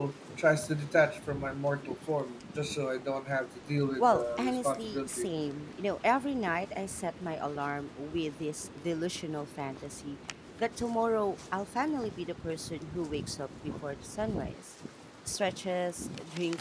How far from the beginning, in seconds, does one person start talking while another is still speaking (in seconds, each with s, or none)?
4.0 s